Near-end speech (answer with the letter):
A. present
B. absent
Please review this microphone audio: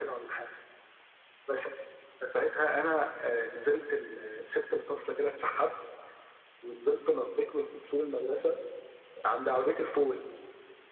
B